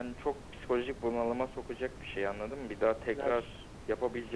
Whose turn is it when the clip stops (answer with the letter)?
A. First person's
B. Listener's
A